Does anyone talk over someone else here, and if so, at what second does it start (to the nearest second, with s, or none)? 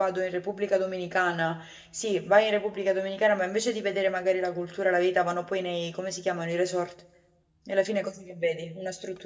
none